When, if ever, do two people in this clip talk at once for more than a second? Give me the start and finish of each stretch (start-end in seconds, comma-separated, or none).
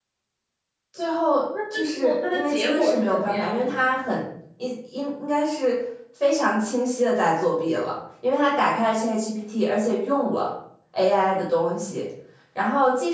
1.7-3.9